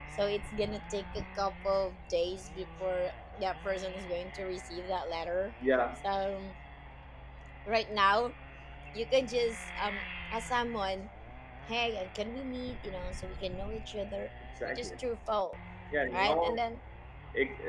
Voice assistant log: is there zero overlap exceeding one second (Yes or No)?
Yes